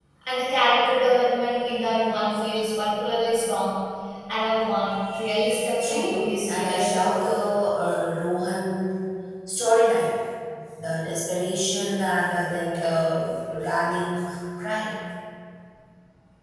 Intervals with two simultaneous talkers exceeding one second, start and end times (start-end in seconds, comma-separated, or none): 5.8-7.3